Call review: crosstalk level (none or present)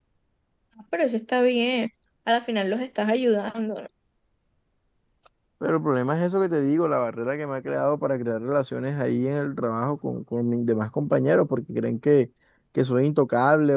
none